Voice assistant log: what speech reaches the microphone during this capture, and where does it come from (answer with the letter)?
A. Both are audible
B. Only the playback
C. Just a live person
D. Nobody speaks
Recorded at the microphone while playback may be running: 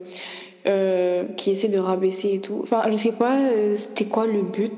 B